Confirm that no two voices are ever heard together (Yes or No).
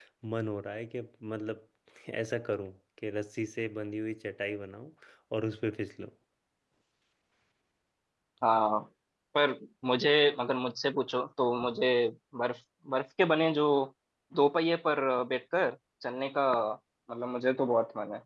Yes